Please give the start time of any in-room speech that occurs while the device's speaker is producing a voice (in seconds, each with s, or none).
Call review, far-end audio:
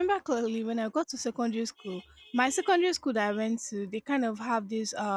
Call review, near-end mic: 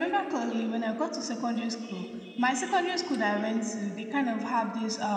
none